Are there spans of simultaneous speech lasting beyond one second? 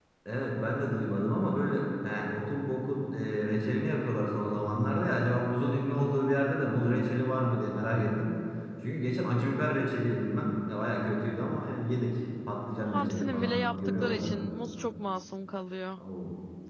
Yes, from 12.9 s

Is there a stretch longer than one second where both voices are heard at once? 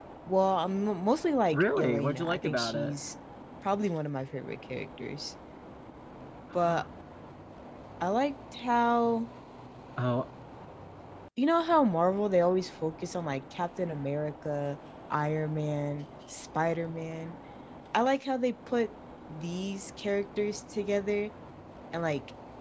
Yes, from 1.5 s

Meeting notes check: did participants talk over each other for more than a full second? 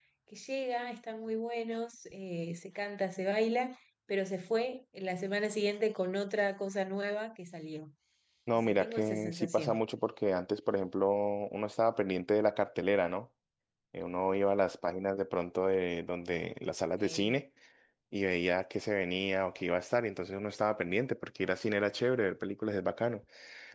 Yes, from 8.5 s

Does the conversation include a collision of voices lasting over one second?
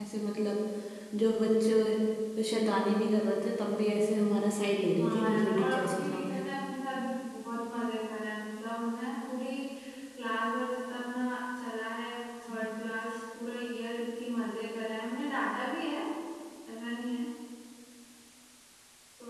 Yes, from 4.8 s

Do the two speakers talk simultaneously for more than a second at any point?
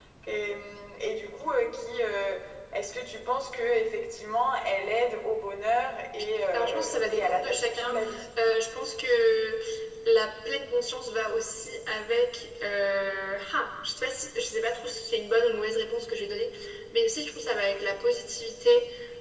Yes, from 6.5 s

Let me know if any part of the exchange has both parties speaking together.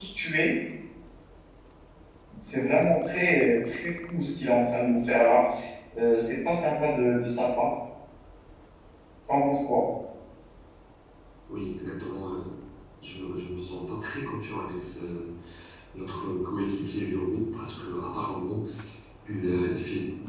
No

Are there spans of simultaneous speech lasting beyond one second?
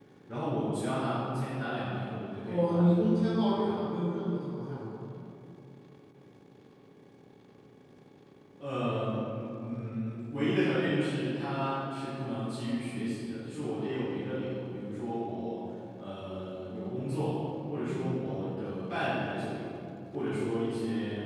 Yes, from 2.5 s

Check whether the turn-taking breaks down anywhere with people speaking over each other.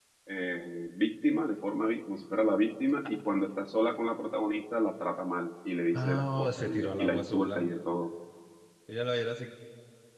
Yes, from 5.9 s

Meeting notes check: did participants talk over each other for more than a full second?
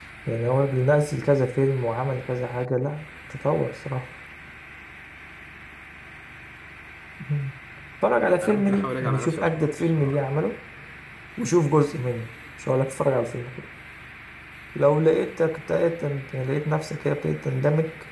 Yes, from 8.4 s

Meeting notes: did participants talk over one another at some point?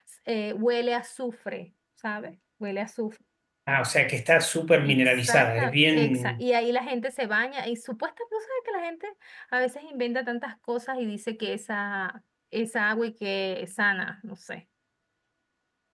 Yes, from 4.8 s

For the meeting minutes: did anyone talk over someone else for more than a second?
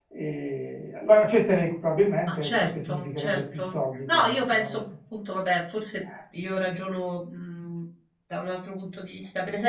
Yes, from 2.3 s

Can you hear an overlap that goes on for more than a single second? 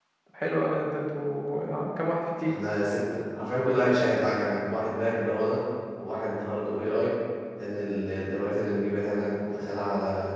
No

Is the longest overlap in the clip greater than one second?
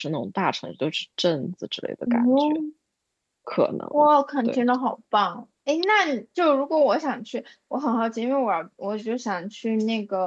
No

